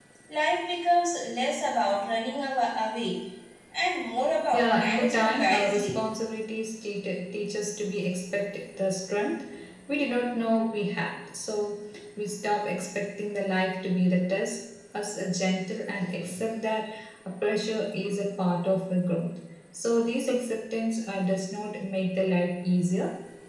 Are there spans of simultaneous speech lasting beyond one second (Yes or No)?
Yes